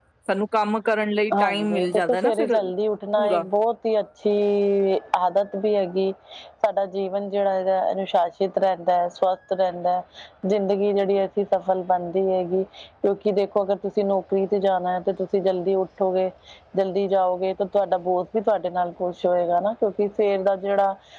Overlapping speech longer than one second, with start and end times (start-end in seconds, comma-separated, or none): 1.4-2.6